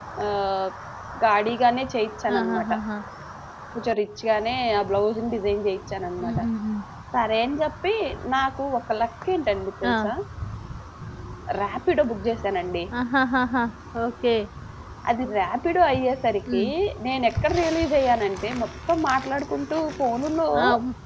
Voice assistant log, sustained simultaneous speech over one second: none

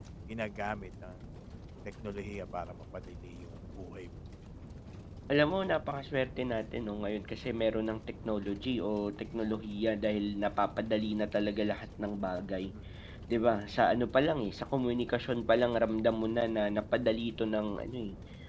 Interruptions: none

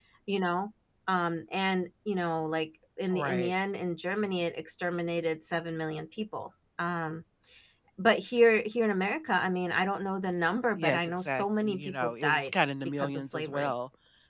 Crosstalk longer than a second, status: present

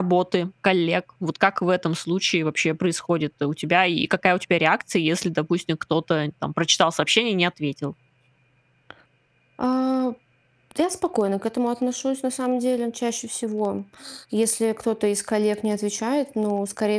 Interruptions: none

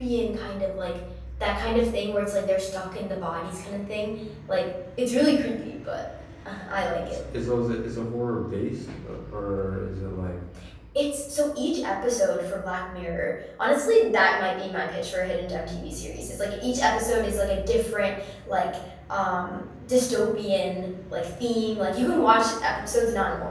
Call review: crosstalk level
none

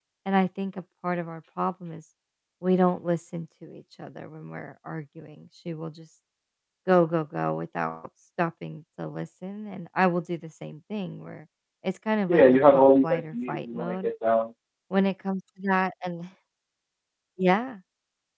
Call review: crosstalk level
present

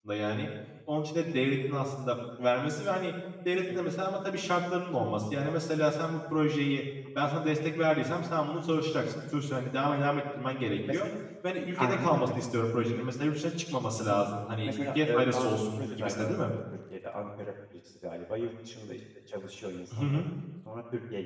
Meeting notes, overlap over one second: present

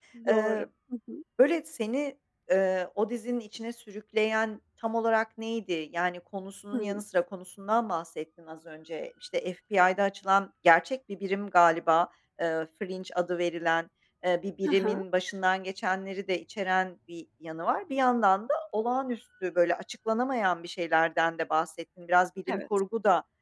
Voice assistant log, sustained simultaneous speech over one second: none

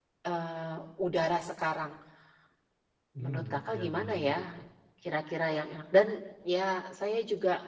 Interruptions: present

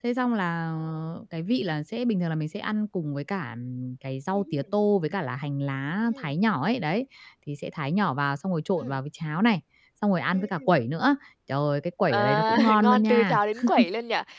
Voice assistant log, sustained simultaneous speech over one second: present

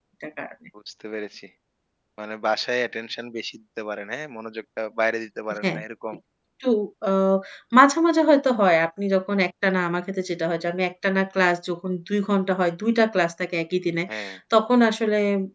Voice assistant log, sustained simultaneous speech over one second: none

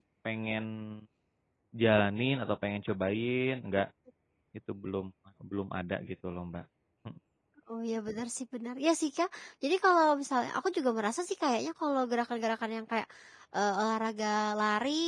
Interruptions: none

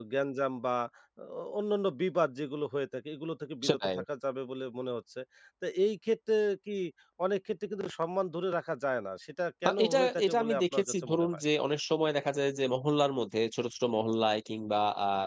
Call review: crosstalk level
present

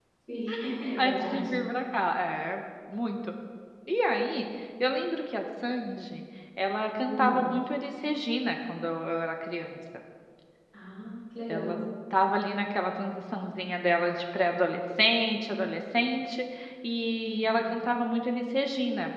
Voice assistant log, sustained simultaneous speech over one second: none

